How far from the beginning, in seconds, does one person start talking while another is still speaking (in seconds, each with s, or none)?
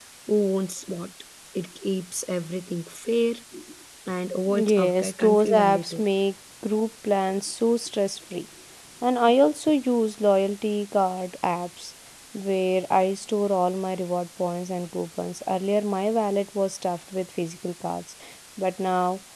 4.6 s